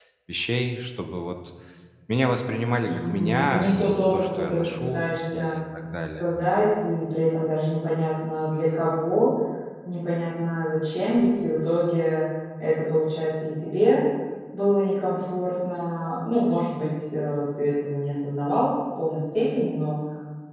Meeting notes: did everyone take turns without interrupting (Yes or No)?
No